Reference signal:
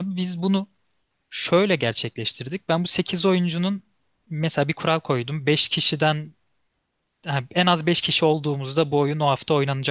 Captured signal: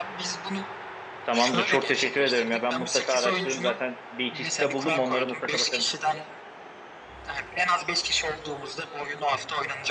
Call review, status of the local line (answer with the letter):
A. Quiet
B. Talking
B